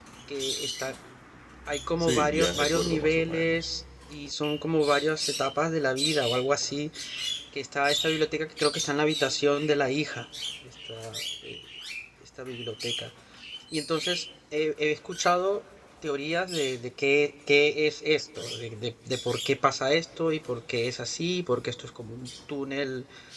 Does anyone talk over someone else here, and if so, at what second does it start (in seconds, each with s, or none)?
2.0 s